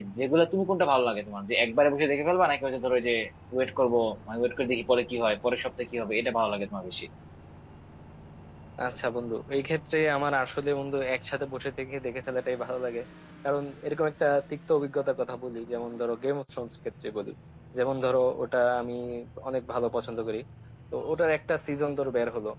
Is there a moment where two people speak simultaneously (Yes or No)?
No